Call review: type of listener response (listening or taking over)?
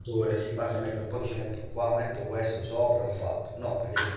taking over